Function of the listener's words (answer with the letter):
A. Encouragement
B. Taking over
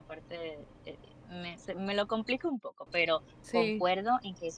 A